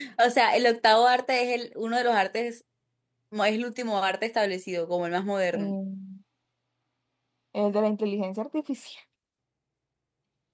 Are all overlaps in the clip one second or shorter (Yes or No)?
Yes